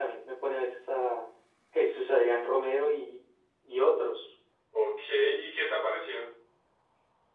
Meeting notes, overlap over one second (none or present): none